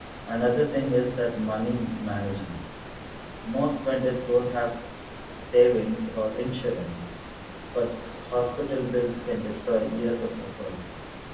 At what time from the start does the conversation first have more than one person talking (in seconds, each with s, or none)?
none